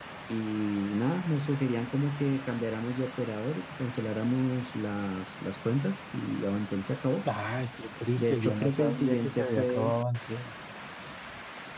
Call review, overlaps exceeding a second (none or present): present